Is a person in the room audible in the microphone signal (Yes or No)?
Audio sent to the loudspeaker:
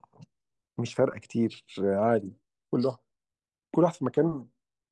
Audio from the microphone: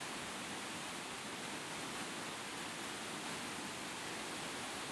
No